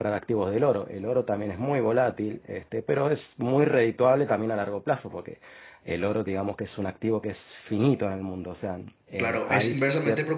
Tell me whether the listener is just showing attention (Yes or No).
No